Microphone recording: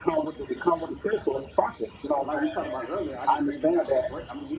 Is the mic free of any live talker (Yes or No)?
No